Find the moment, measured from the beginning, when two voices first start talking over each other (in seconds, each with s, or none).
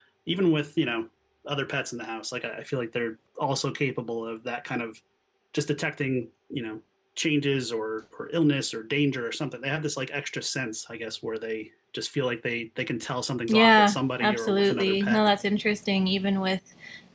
13.5 s